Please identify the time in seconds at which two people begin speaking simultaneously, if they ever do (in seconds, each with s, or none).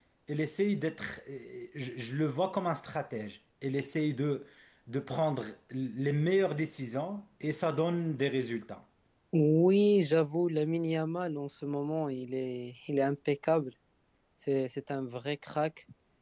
none